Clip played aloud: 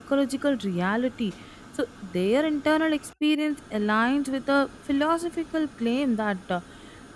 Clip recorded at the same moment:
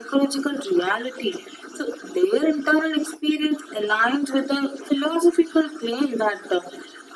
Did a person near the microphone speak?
No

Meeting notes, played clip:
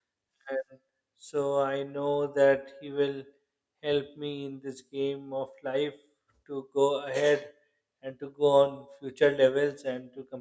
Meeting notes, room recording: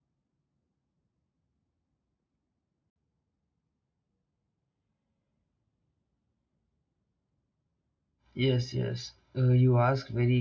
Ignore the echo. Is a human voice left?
Yes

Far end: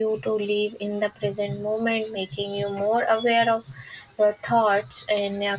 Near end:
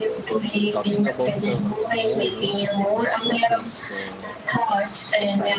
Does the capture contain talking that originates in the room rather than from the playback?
Yes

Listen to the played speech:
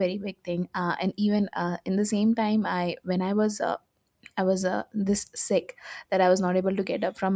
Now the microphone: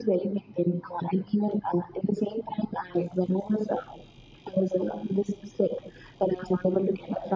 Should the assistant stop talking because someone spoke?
No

